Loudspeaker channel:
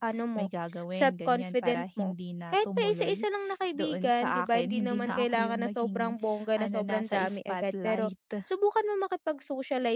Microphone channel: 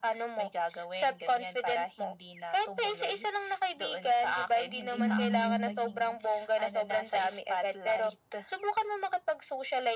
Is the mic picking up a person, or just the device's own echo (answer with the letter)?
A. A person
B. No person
A